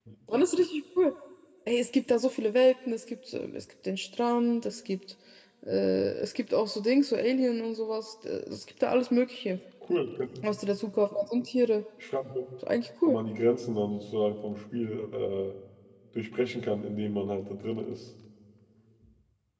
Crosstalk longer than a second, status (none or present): none